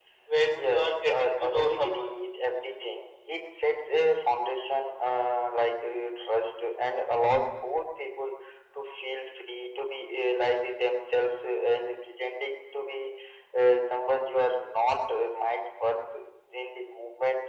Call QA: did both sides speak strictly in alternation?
No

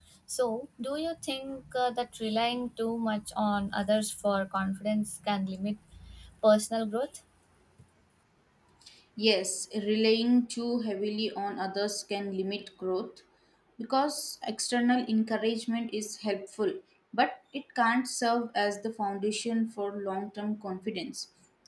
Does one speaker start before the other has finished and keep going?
No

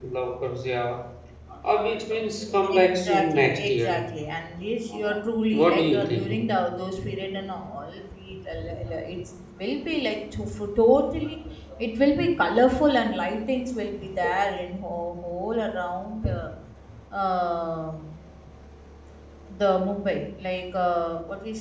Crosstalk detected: Yes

